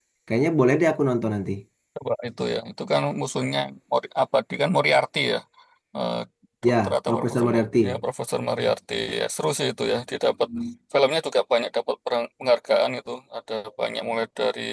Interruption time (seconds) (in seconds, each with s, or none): 6.6 s